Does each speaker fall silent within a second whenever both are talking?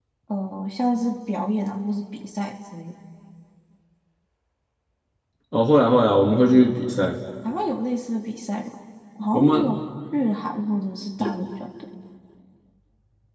Yes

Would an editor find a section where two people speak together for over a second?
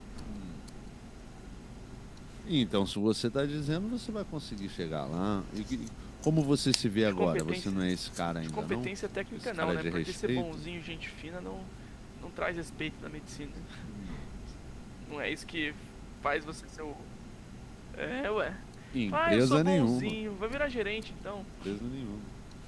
Yes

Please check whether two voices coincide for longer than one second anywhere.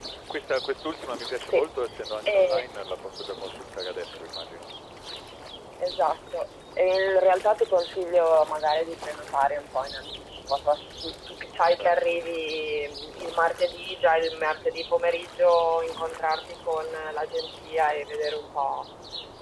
No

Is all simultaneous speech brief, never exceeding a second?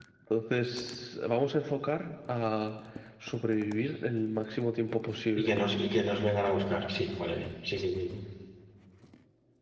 Yes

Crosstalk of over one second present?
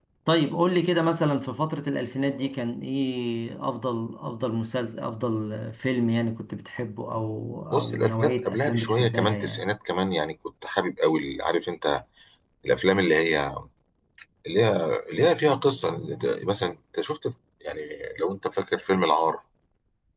Yes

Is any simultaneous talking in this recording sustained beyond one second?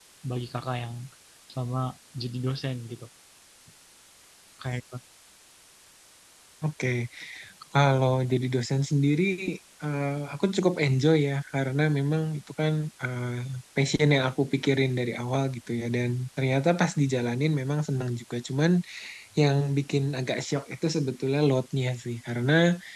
No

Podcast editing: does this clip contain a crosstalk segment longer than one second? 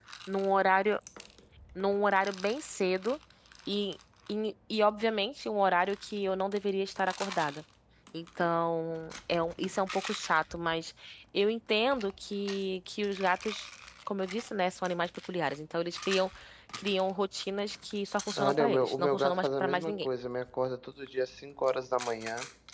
Yes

